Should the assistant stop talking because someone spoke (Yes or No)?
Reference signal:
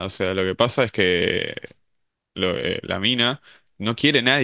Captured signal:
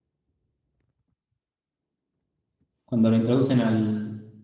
Yes